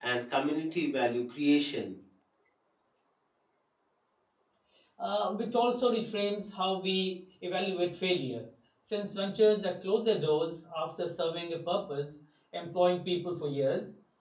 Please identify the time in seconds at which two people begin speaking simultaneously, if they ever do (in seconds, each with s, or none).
none